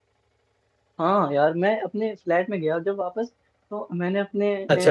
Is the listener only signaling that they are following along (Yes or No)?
Yes